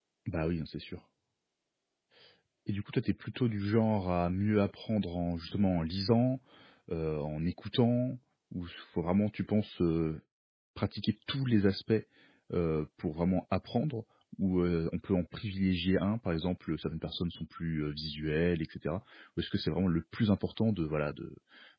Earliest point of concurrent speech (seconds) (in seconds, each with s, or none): none